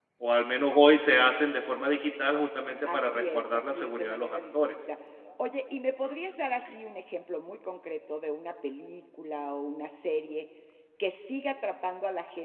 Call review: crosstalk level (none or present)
present